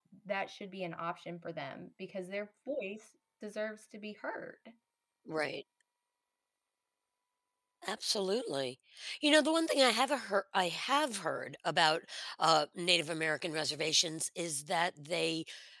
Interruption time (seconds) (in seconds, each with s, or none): none